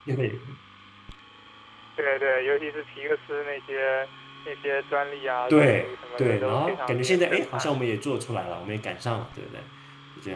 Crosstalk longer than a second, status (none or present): present